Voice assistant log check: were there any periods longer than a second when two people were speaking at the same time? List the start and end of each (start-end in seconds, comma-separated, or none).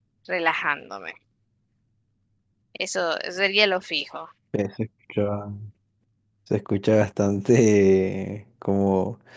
none